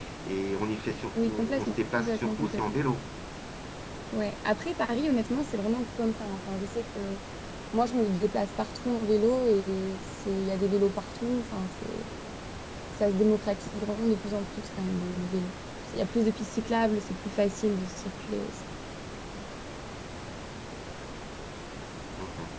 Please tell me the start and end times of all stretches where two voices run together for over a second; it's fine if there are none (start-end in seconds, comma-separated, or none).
1.2-2.8